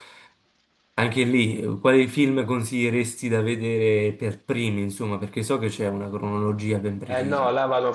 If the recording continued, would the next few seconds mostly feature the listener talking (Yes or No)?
Yes